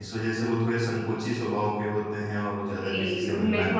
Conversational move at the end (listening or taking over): taking over